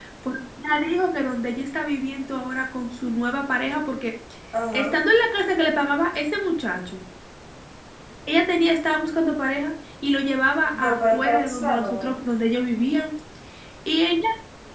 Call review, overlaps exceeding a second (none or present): present